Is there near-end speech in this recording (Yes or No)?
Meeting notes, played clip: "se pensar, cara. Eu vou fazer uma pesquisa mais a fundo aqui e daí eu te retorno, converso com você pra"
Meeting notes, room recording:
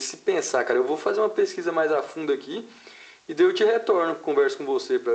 No